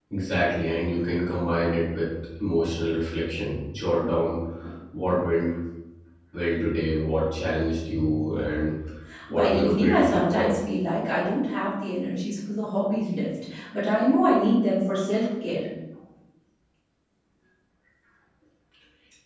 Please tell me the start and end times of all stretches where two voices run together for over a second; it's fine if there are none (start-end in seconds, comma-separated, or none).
9.3-10.5